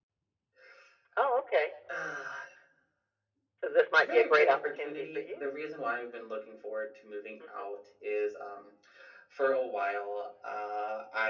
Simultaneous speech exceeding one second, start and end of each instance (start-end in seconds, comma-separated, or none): 3.6-5.5